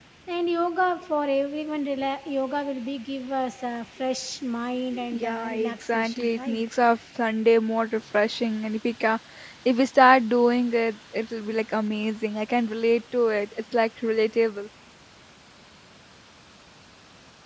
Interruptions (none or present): present